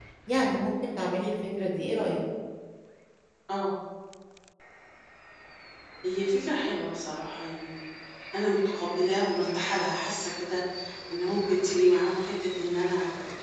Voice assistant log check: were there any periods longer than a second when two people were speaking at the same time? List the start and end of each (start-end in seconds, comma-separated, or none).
none